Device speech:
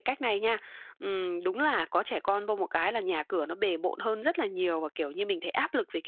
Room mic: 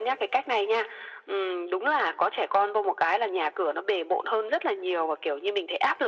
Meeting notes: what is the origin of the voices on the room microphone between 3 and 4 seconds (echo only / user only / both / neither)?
echo only